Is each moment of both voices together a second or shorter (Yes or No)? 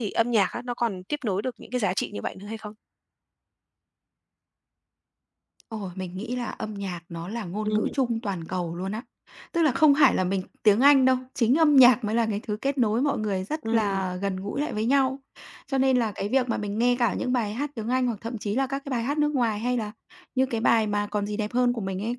Yes